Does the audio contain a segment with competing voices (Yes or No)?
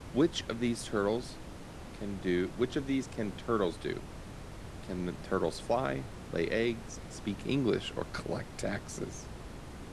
No